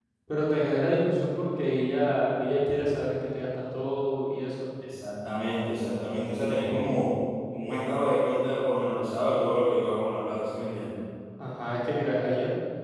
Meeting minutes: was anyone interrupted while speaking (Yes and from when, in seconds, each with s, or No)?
No